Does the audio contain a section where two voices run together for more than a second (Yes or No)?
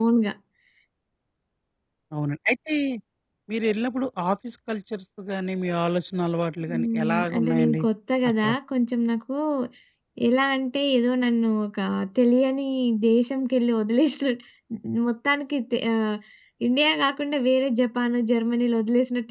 Yes